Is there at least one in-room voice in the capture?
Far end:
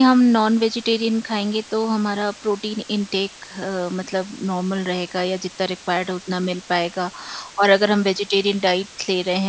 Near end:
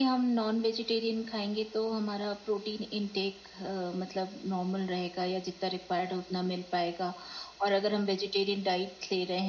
No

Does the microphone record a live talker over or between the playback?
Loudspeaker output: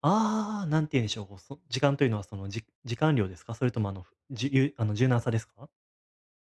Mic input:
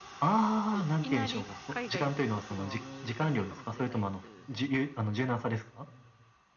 Yes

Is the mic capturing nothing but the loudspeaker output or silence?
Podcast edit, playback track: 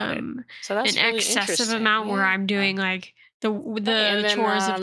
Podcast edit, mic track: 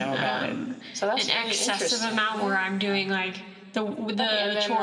Yes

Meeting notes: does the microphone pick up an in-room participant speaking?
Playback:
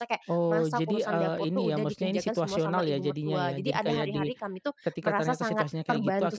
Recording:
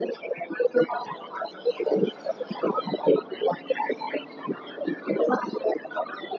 No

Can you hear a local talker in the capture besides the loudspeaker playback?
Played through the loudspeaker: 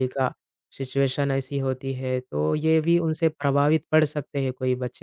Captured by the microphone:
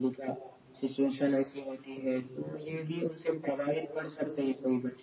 No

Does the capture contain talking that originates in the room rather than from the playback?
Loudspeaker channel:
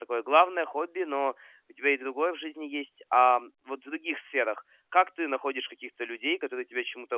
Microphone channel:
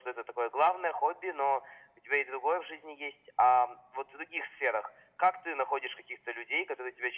No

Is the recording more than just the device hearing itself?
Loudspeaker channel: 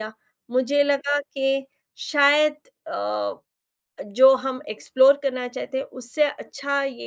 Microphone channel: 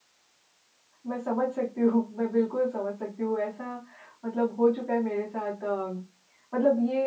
Yes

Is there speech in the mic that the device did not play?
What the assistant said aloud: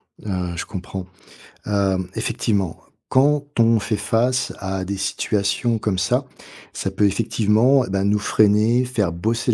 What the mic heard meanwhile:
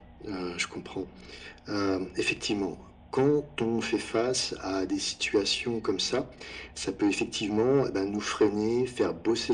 No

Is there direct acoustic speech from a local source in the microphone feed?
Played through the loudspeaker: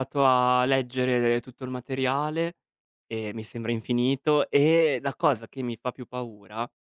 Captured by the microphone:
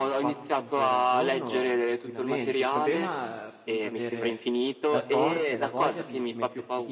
Yes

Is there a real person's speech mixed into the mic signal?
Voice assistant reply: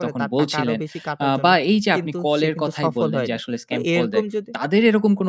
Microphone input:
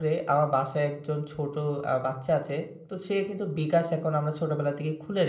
Yes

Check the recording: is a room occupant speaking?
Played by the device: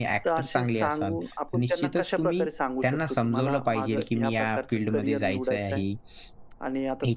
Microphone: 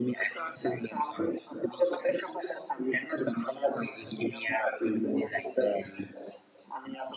No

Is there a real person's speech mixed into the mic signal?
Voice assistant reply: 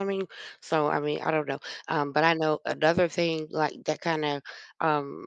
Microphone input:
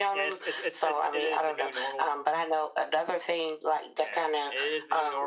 Yes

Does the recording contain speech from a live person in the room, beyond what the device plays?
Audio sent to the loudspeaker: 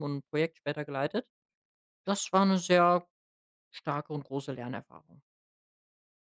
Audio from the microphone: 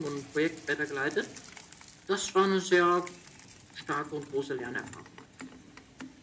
No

